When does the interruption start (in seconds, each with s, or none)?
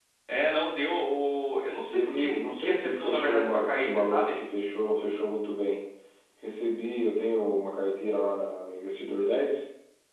1.9 s